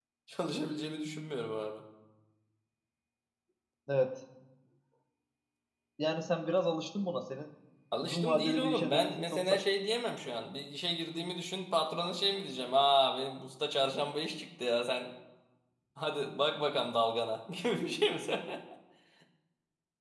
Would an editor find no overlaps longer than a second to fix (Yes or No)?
No